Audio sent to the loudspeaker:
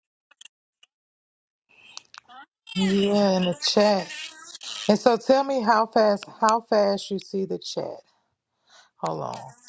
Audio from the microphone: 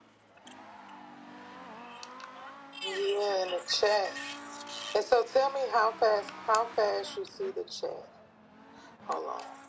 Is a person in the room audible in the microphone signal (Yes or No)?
No